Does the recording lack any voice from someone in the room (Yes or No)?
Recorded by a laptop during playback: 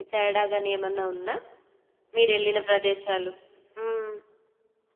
No